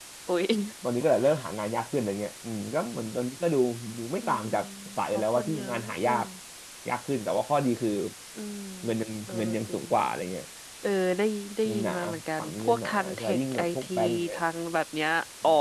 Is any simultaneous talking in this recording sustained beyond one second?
Yes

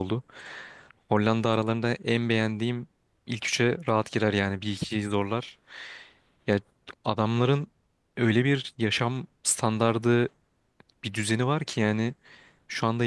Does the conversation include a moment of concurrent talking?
No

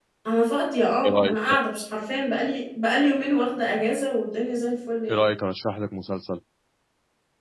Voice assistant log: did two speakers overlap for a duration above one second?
No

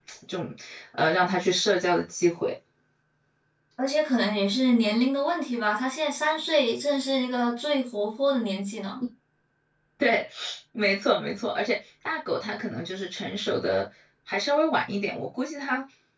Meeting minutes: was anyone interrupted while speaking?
No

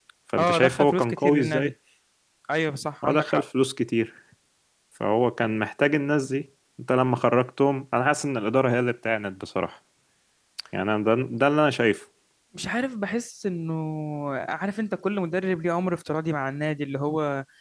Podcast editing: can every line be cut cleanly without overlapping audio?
No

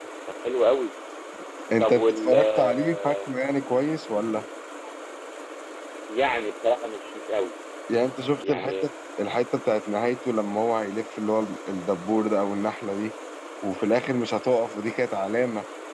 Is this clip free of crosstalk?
No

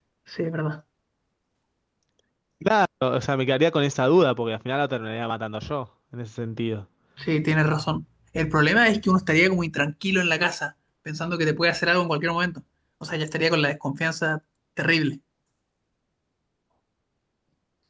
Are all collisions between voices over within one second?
Yes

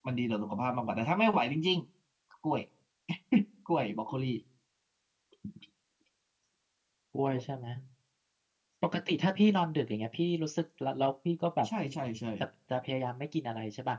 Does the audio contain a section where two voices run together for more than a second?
No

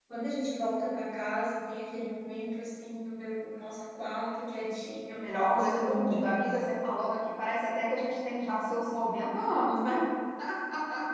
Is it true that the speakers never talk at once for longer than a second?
No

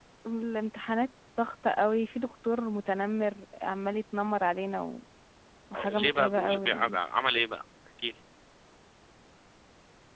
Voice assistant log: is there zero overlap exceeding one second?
No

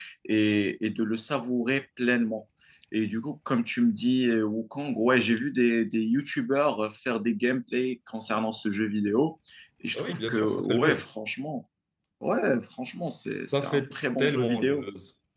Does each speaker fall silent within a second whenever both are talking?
No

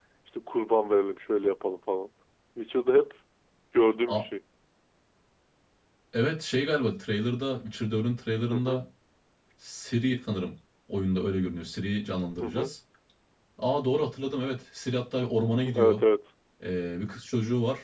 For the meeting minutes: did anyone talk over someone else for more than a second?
No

